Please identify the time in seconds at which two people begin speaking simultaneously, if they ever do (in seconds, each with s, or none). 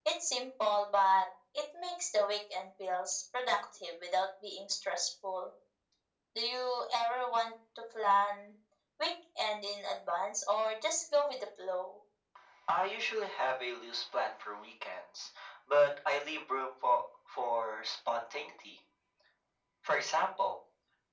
none